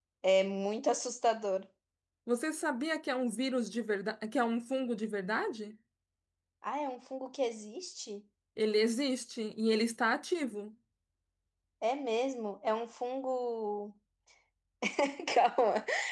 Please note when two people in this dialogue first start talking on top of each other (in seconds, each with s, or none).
none